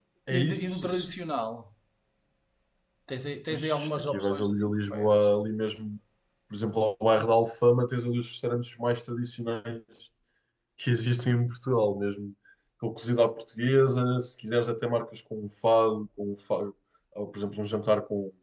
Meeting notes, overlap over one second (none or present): present